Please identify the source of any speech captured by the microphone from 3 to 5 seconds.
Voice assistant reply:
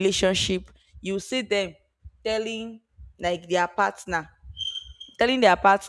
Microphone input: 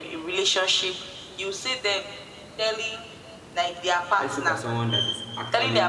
both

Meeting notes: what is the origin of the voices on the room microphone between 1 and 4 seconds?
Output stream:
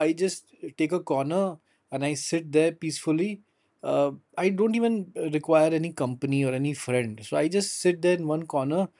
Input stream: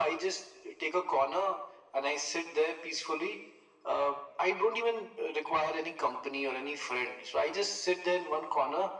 echo only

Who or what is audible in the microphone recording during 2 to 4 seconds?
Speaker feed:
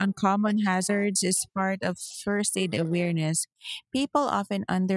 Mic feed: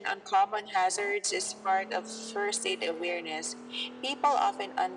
echo only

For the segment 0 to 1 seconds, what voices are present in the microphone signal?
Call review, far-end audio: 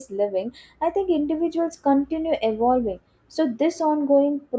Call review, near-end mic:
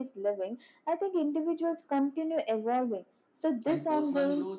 echo only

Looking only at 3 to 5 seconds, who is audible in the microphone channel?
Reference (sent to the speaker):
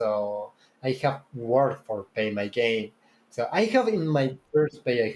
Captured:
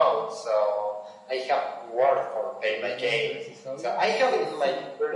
both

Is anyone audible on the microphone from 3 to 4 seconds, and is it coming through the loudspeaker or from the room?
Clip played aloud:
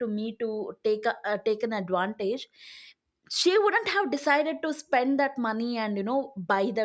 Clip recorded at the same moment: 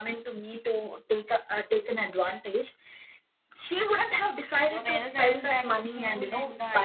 echo only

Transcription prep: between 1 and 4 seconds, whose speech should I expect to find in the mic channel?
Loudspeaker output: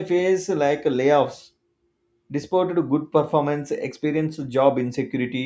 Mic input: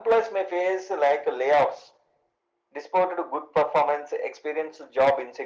echo only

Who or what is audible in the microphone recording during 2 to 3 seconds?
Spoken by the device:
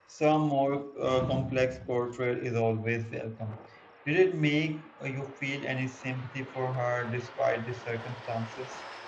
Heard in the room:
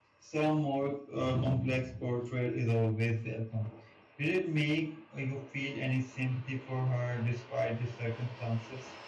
echo only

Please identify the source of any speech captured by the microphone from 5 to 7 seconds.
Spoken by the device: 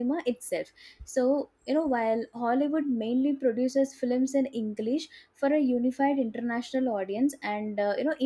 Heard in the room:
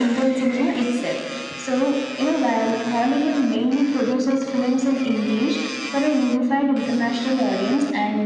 echo only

